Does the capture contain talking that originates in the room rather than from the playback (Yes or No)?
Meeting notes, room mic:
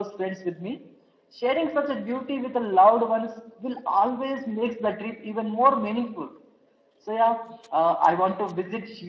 No